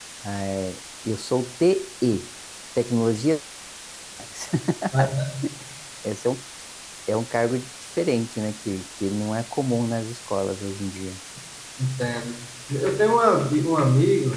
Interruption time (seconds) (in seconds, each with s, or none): none